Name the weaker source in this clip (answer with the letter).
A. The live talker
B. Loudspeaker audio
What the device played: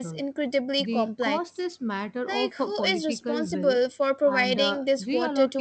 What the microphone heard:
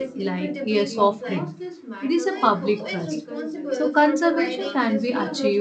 B